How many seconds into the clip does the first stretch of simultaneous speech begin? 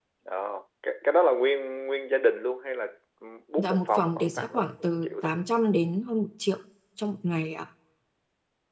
3.6 s

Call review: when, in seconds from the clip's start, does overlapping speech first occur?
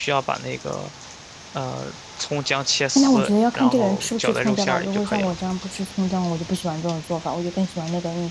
3.0 s

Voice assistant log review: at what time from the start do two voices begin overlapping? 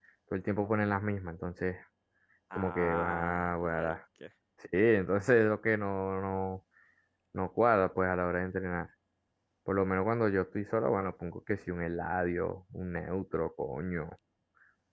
2.6 s

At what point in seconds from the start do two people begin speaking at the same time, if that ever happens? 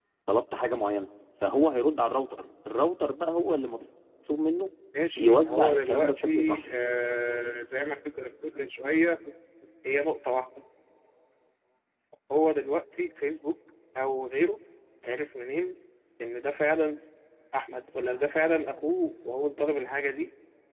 5.2 s

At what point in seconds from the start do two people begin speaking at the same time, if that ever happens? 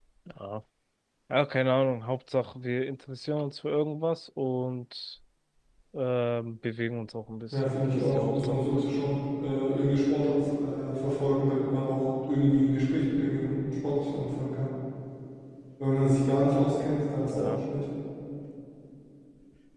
7.5 s

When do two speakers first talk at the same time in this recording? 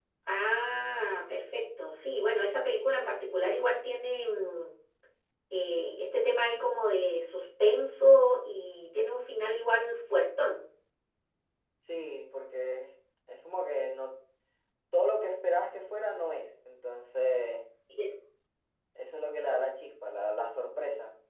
none

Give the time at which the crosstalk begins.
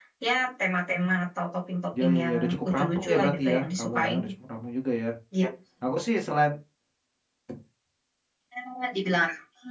1.9 s

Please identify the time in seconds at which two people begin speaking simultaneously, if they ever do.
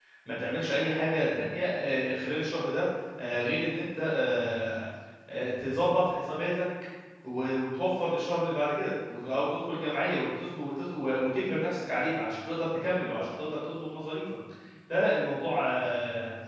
none

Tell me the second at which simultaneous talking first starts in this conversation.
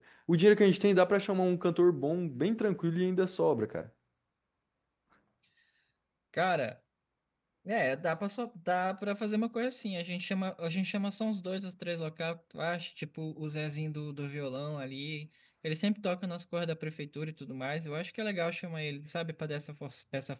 none

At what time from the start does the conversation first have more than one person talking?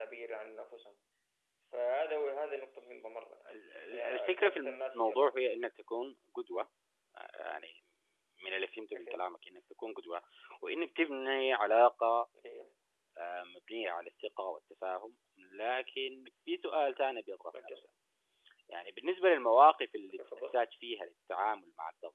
3.9 s

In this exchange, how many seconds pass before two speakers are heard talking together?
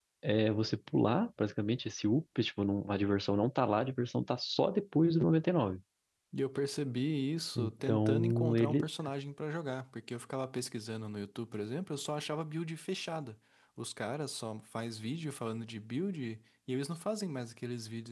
7.5 s

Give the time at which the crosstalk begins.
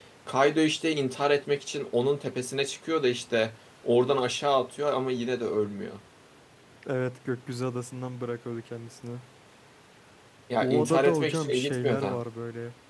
10.6 s

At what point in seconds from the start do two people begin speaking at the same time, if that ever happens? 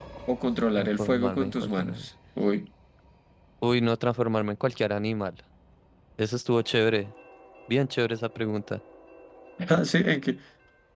0.7 s

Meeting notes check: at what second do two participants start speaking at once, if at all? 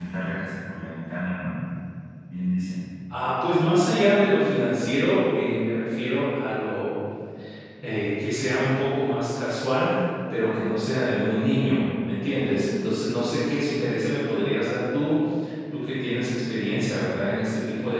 none

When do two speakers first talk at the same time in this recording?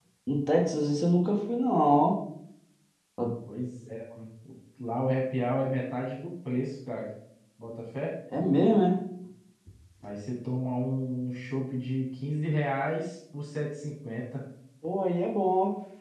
none

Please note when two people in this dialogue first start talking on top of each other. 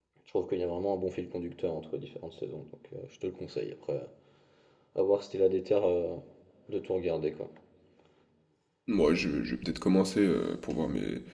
none

